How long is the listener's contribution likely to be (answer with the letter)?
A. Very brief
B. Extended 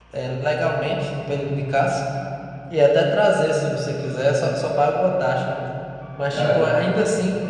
A